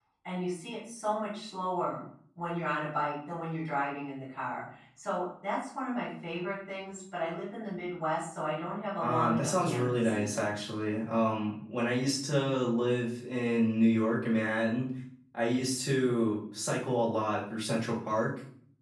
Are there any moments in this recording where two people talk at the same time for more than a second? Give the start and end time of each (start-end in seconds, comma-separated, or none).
9.0-10.5